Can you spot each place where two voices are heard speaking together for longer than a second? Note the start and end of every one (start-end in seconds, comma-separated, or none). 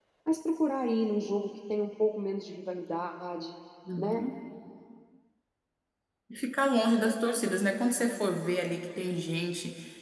none